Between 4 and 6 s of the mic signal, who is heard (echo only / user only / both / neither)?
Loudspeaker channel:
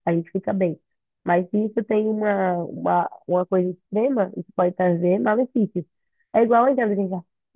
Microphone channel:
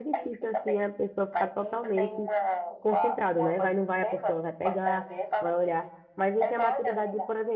both